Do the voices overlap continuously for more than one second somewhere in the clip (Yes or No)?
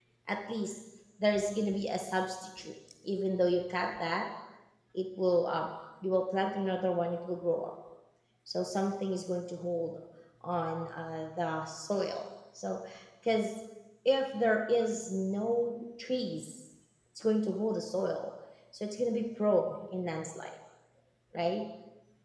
No